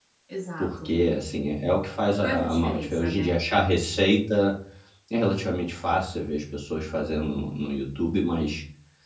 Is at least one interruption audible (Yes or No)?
Yes